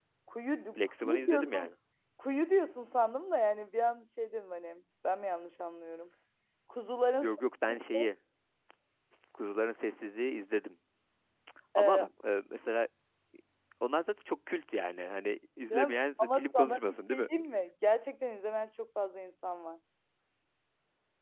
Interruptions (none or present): present